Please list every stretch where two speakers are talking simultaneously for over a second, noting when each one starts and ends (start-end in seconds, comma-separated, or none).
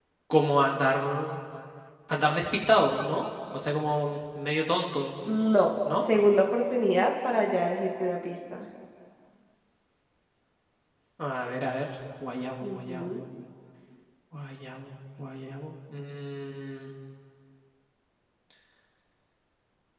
none